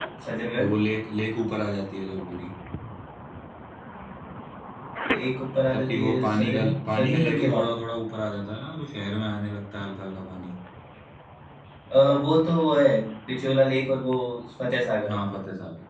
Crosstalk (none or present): present